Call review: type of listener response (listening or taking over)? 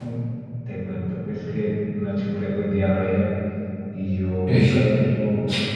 listening